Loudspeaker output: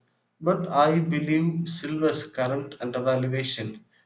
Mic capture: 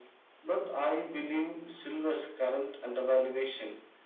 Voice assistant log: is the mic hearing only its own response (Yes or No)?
Yes